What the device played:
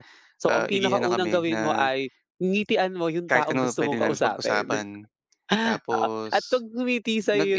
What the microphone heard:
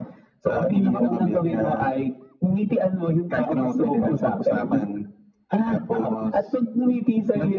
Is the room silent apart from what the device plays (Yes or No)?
Yes